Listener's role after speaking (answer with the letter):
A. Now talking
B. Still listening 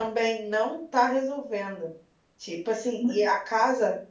B